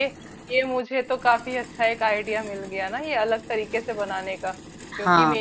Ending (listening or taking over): listening